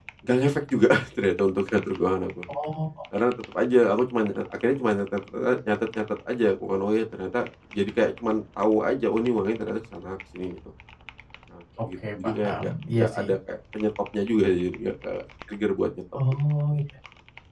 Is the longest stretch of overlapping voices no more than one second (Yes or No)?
No